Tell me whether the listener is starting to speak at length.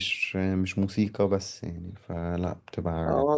Yes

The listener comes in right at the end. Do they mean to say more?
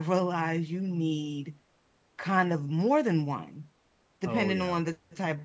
No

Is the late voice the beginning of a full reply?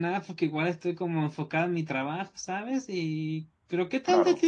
No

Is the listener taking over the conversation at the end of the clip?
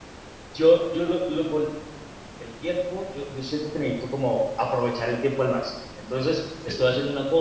No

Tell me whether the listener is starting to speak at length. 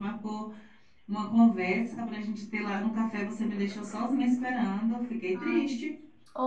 Yes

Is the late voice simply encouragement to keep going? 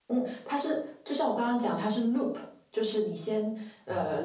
Yes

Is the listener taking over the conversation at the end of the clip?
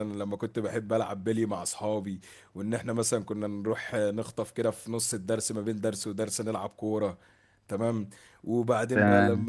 No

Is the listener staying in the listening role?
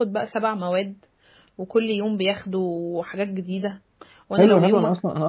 No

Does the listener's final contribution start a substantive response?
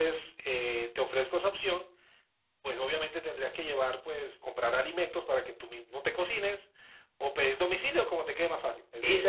Yes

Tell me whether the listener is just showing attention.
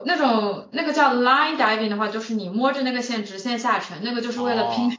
Yes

